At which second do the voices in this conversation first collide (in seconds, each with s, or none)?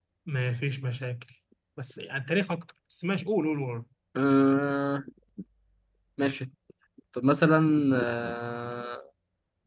none